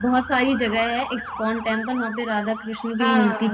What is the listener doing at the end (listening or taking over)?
taking over